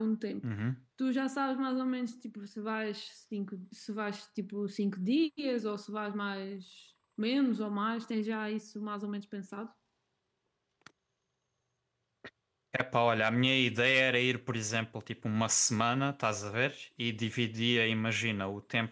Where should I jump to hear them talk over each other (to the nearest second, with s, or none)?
none